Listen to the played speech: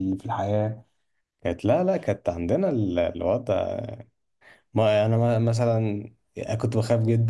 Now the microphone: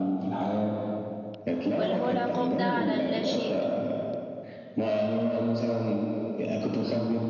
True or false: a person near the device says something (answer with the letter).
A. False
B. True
B